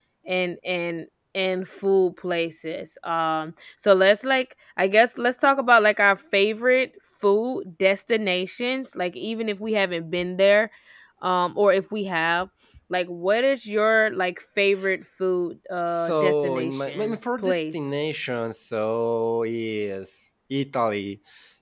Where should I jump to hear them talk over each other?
15.9 s

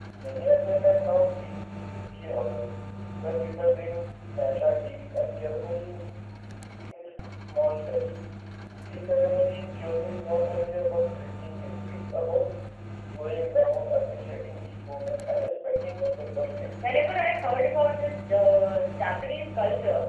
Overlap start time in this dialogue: none

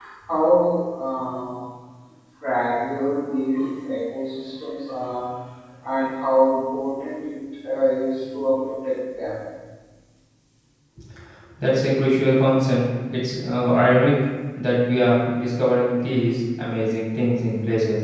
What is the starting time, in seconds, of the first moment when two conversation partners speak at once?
none

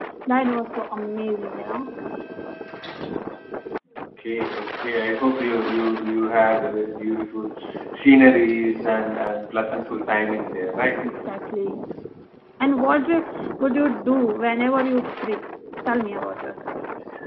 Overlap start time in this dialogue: none

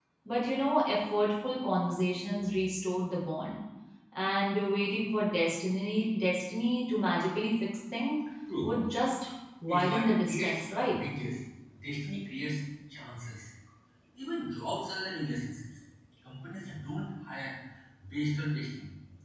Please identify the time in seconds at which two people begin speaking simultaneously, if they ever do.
9.7 s

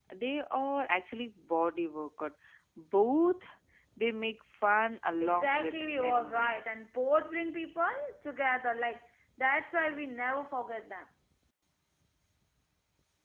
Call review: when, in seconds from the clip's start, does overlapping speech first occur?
5.2 s

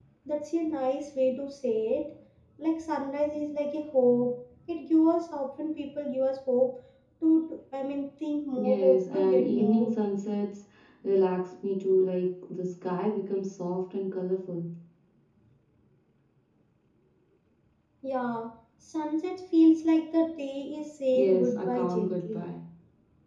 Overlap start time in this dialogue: 8.5 s

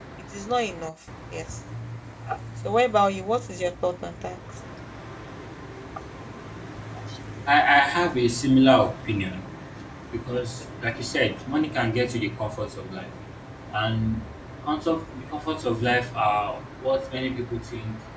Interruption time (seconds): none

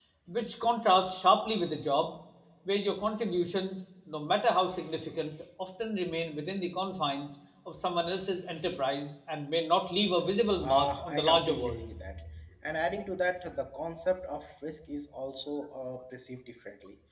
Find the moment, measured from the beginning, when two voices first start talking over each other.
10.4 s

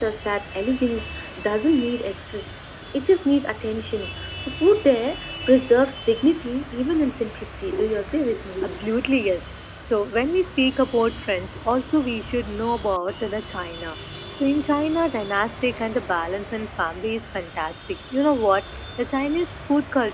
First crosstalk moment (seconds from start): none

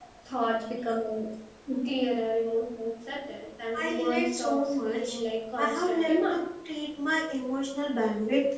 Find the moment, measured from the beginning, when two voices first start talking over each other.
3.7 s

